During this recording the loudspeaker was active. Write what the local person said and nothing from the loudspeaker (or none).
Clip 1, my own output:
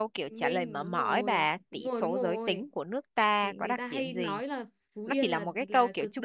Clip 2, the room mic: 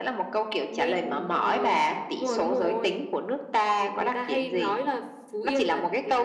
none